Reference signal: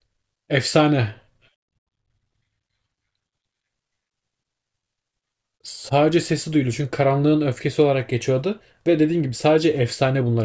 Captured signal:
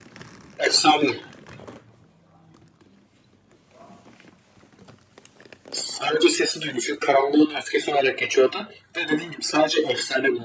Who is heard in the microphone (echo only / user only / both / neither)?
echo only